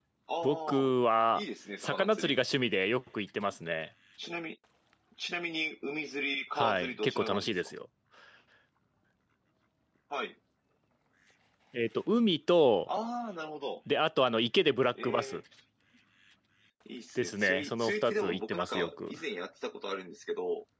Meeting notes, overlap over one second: present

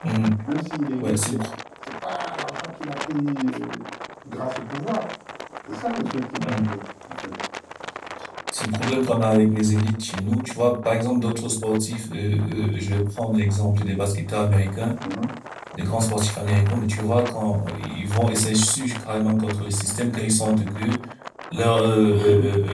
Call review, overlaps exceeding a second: none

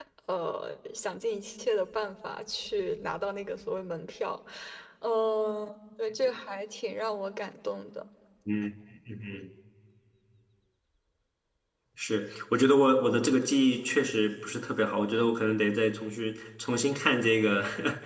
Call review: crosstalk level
none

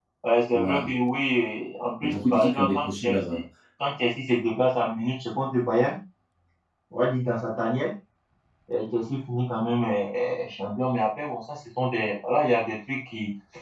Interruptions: present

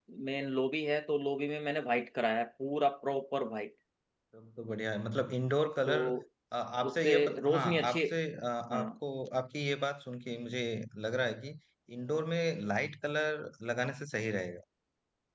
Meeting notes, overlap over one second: present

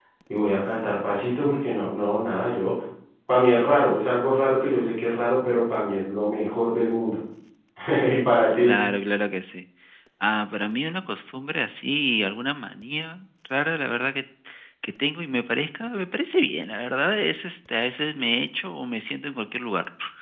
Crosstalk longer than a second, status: none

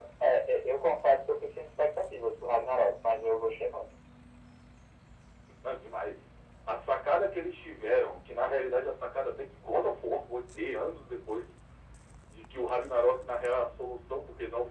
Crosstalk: none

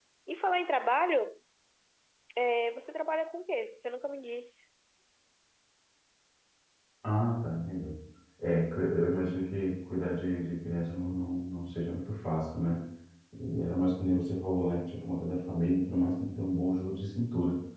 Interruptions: none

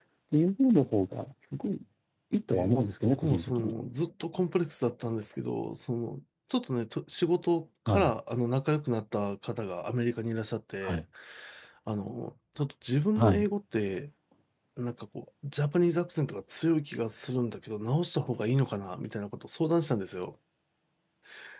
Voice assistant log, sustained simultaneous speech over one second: present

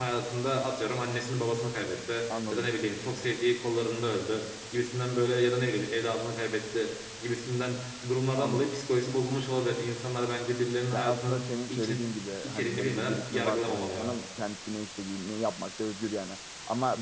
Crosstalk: present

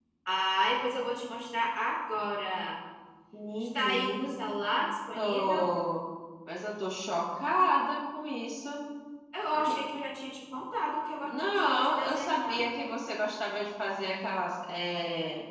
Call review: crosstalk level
present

